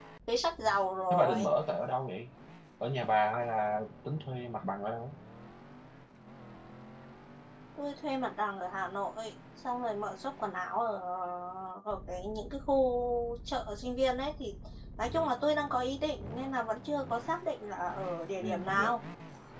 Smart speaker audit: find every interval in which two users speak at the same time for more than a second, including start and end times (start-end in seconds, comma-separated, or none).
none